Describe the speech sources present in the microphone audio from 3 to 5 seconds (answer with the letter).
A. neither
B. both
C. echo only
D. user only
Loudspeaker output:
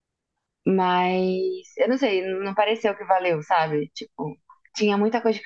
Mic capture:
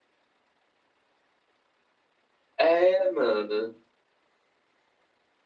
D